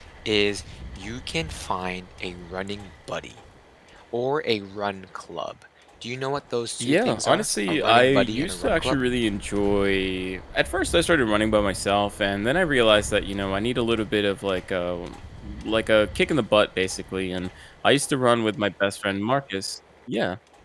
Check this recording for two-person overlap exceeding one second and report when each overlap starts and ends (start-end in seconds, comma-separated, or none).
6.8-9.0